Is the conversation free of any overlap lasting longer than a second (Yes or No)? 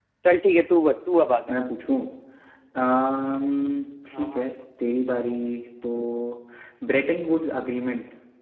Yes